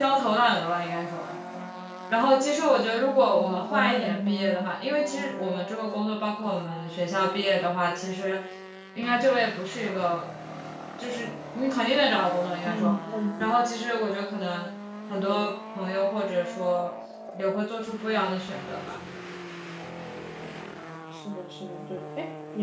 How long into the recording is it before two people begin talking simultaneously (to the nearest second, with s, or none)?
3 s